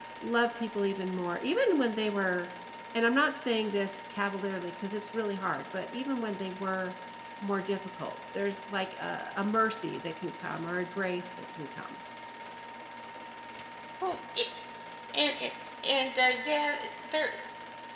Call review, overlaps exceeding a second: none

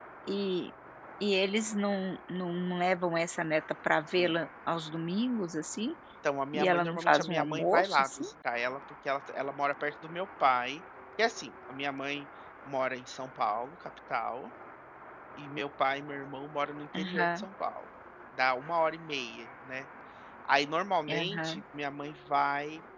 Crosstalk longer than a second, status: present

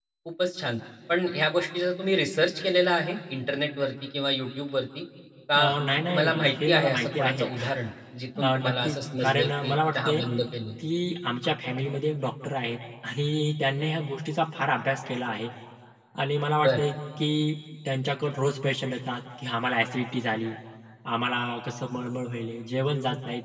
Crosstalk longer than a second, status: present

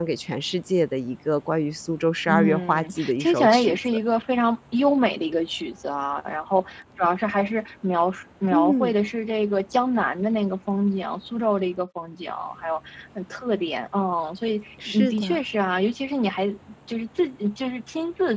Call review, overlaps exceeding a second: present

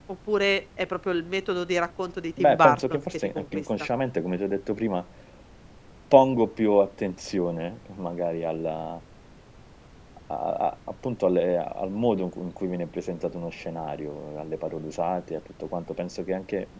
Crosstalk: present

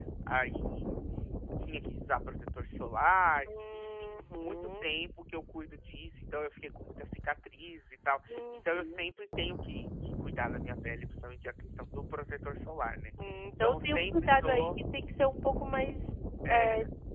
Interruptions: present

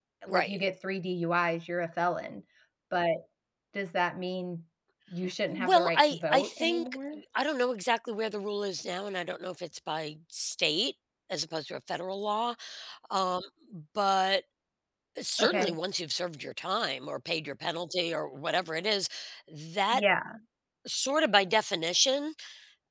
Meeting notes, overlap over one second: present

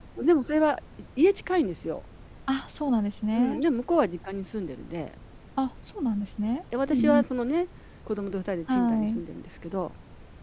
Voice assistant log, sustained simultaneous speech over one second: none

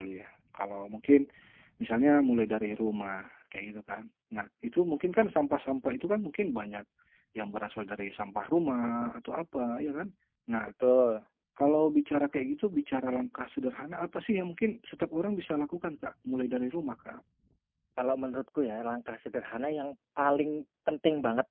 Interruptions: none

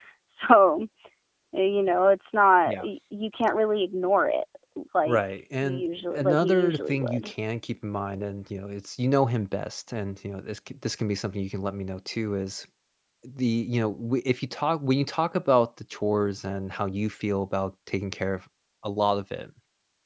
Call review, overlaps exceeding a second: present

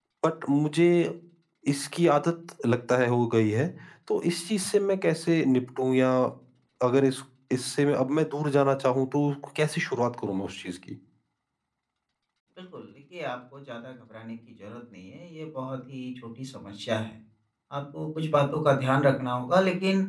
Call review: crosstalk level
none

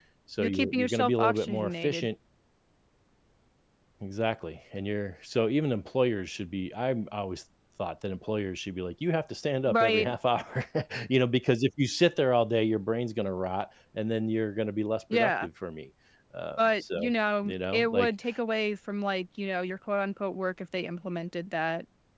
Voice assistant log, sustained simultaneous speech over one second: present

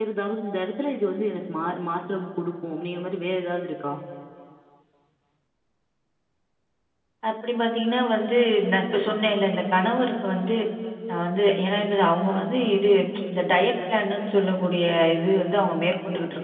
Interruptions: none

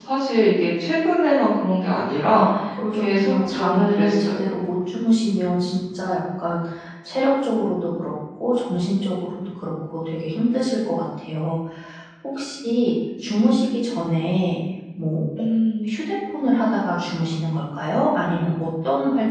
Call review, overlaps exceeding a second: present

